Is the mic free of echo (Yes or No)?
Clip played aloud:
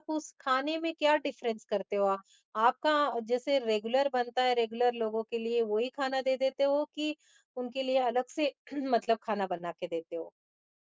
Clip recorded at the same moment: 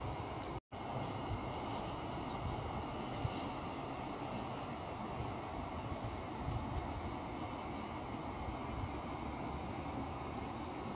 Yes